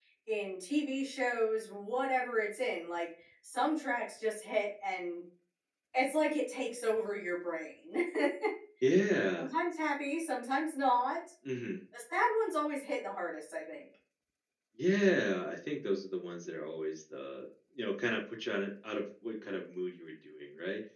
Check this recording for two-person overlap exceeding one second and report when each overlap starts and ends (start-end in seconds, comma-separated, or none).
none